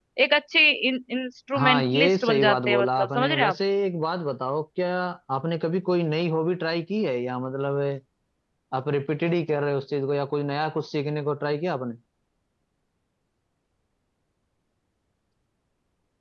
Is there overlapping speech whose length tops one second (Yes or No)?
Yes